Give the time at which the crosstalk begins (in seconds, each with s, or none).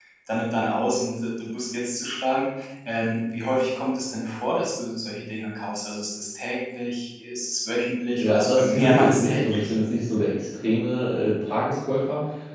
8.2 s